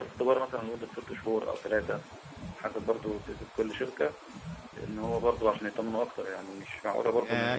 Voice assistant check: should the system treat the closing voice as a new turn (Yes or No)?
Yes